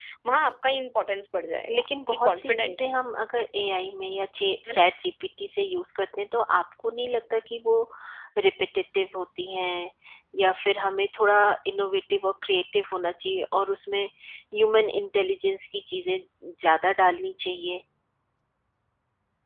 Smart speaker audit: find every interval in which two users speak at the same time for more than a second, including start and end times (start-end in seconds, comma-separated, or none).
1.7-2.9